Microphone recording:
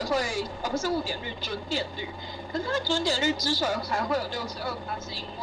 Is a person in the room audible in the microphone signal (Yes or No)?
No